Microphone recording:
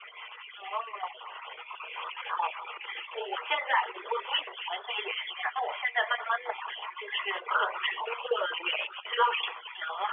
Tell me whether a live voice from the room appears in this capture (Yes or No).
No